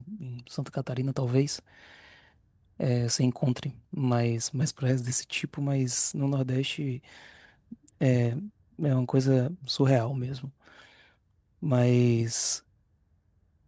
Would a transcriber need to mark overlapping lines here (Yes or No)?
No